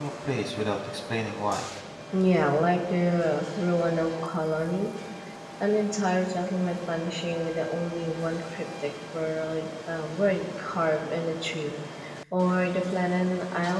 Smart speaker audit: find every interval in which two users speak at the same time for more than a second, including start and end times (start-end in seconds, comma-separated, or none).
none